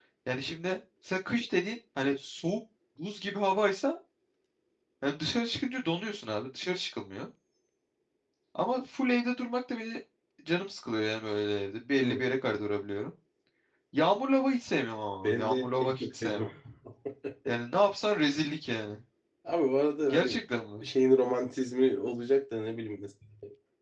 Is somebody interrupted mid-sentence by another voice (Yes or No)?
Yes